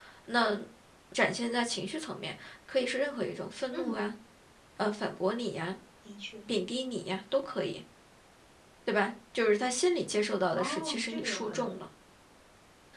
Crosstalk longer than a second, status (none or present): present